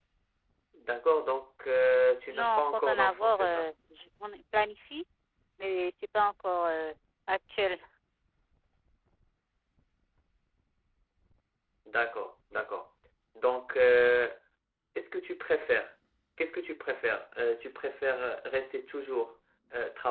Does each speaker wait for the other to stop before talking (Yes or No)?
No